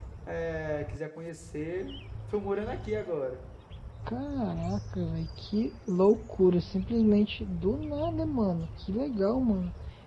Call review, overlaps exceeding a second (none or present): none